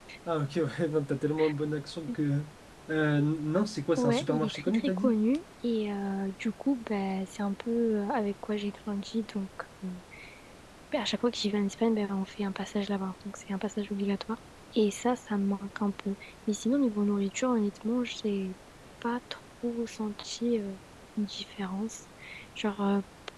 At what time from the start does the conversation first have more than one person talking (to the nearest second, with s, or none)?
4 s